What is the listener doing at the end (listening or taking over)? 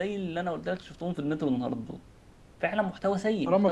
taking over